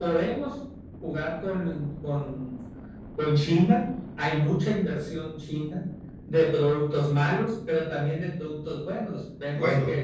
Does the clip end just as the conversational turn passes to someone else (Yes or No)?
No